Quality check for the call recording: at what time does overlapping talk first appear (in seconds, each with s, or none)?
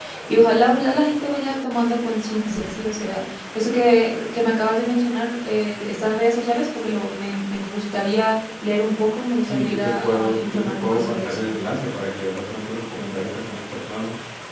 9.5 s